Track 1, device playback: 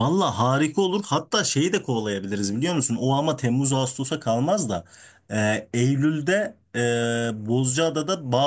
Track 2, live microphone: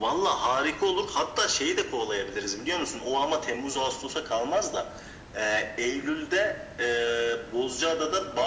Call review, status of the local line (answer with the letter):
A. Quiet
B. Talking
A